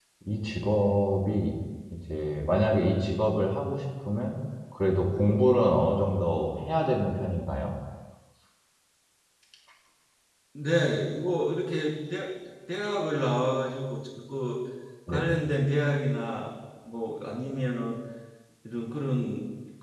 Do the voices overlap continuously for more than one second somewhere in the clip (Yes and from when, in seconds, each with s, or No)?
No